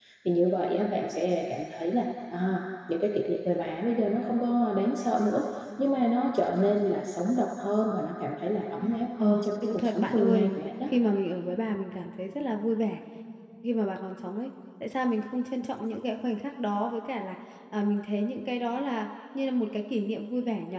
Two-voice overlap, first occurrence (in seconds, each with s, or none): 8.8 s